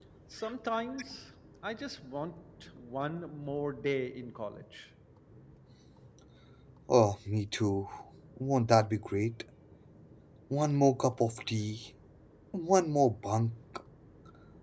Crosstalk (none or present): none